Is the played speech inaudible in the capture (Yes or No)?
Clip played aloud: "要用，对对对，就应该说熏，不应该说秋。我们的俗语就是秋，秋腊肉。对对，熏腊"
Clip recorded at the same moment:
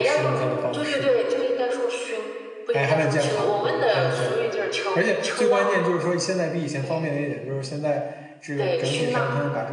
No